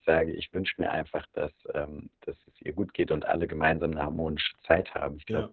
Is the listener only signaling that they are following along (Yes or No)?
Yes